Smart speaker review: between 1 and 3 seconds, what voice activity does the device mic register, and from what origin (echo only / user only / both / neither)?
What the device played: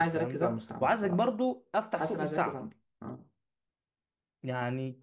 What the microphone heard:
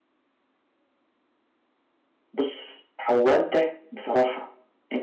user only